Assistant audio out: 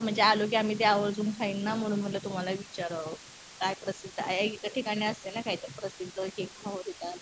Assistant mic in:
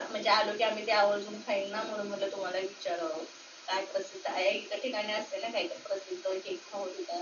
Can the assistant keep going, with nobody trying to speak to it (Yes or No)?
Yes